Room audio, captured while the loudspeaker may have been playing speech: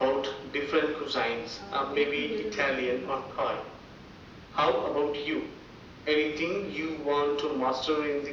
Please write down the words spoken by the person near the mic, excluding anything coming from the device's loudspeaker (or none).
uh, make together with the friends.